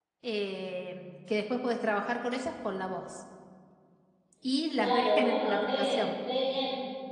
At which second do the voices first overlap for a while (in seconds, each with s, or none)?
4.7 s